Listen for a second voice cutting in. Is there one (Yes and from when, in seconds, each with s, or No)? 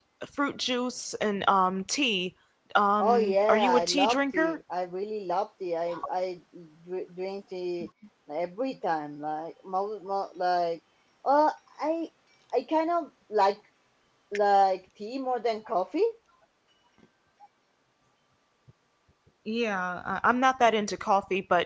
Yes, from 3.0 s